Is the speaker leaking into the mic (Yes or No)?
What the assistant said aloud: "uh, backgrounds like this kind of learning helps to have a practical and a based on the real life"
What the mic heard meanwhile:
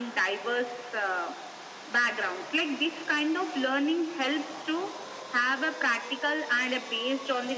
Yes